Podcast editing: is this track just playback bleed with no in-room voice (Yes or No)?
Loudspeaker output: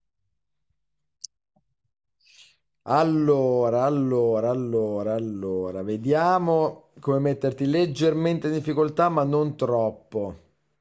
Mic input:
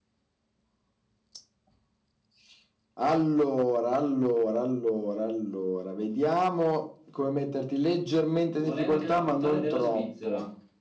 No